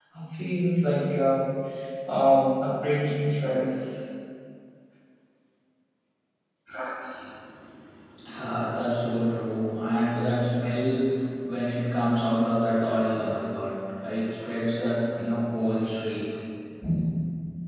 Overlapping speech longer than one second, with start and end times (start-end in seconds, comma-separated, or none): none